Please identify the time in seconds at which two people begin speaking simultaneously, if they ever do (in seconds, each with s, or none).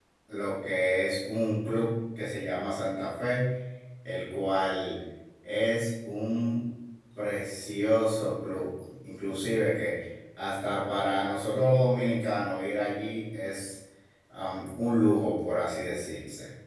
none